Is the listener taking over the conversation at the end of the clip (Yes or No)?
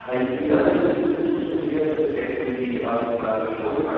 No